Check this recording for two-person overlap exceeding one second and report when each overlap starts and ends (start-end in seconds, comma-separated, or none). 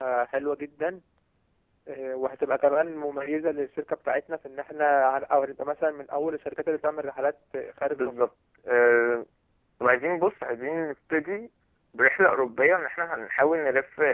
none